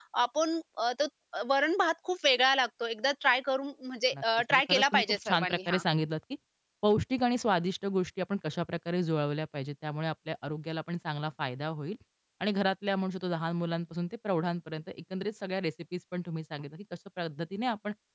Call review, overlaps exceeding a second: present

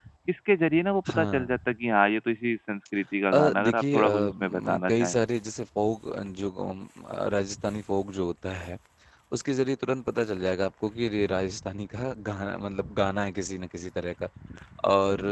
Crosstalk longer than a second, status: present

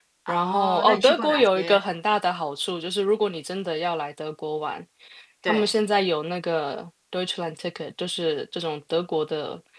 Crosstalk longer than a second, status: present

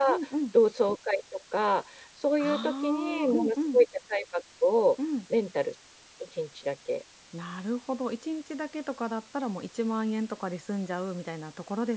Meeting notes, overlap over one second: present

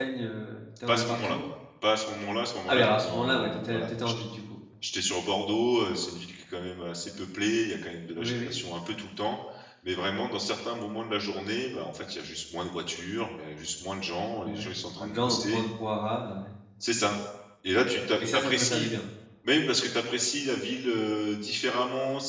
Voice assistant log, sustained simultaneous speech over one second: present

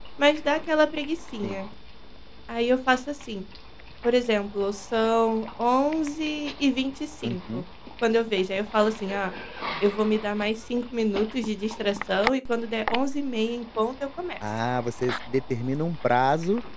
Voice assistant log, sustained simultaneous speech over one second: none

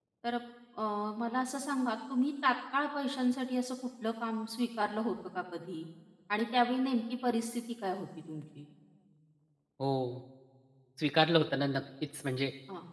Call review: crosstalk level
none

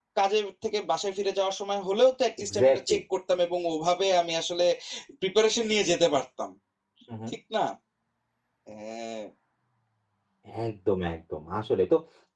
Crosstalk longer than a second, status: none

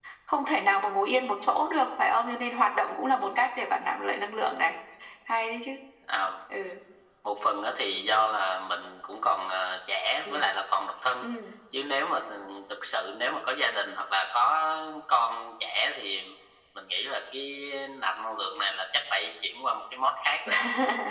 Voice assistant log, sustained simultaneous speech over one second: none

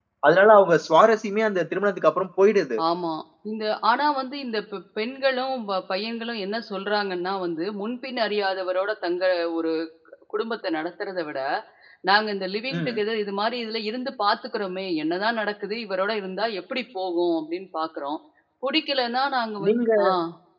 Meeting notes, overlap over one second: none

